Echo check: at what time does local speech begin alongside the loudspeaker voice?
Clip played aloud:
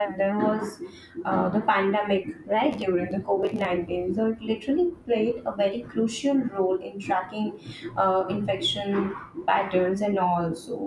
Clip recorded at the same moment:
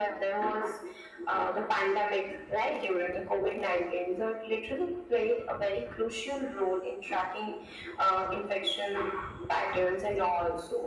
none

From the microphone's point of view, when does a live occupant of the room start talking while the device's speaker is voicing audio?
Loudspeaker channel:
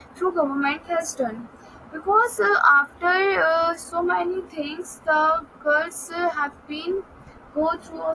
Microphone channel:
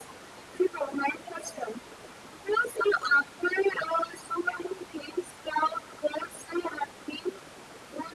none

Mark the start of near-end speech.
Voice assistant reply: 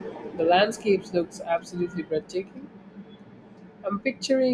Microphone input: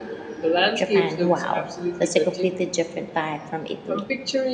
0.7 s

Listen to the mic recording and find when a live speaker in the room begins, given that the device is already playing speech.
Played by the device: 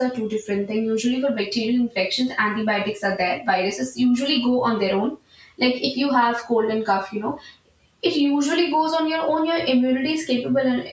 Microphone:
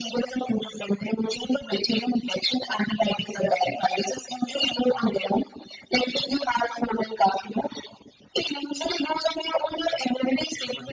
none

